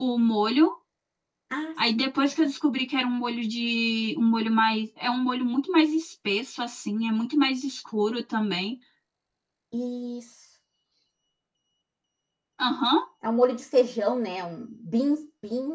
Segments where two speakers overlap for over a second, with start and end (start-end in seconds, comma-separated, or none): none